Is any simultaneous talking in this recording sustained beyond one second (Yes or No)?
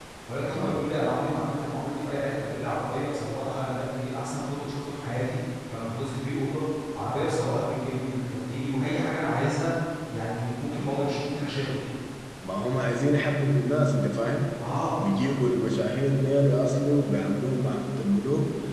No